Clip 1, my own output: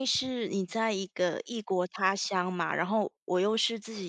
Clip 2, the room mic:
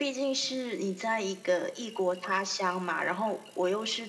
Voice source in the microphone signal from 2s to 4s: echo only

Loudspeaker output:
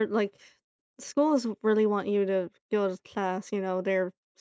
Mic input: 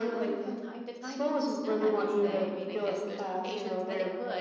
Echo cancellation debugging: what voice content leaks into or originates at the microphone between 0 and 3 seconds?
both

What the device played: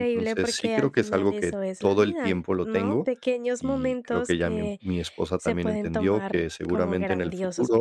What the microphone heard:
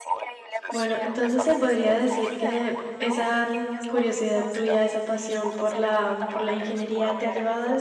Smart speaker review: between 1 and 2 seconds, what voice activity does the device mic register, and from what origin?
both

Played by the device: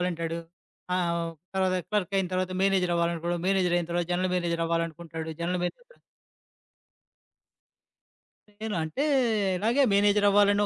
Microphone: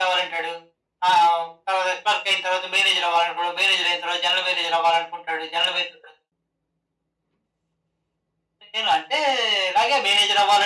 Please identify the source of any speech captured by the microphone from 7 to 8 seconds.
neither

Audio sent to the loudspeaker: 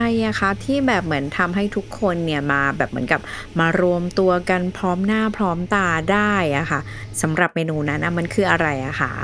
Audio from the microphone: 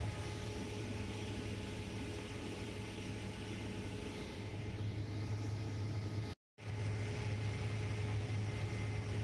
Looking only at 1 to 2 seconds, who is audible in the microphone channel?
neither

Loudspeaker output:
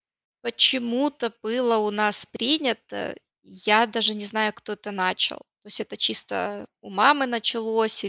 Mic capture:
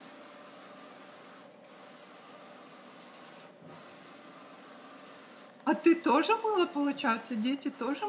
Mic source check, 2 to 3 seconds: neither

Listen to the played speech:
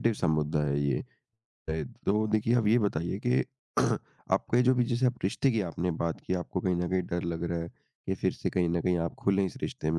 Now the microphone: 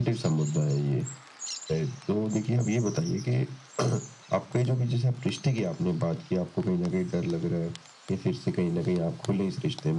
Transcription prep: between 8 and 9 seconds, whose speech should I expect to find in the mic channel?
echo only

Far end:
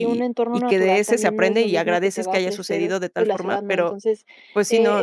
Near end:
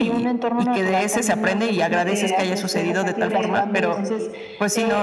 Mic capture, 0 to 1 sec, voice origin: echo only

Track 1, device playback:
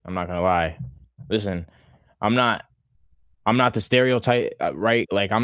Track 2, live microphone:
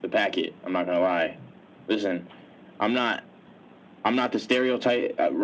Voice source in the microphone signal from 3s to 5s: echo only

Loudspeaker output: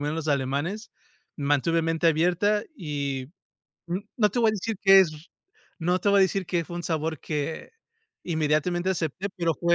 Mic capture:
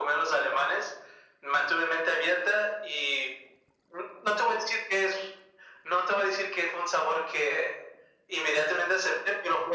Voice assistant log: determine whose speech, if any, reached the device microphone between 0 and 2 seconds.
echo only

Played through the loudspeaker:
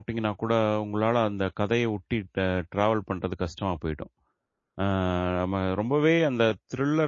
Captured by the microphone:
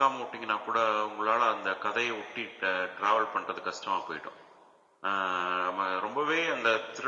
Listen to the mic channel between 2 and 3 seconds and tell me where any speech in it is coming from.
echo only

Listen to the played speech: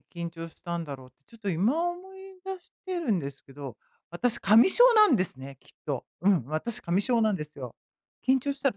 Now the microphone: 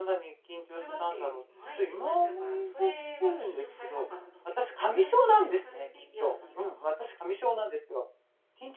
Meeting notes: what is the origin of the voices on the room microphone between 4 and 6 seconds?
both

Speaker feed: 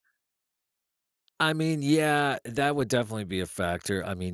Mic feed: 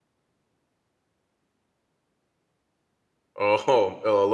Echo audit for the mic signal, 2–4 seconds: user only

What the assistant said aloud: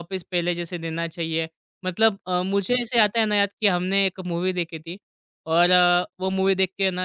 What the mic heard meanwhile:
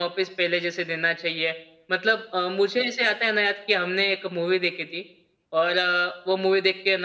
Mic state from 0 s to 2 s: echo only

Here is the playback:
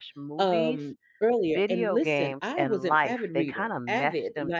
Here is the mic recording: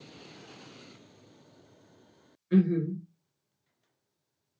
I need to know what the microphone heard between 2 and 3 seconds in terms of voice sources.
user only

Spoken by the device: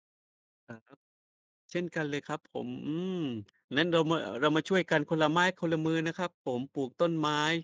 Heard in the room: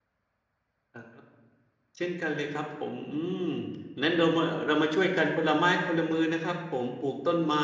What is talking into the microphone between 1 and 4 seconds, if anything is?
echo only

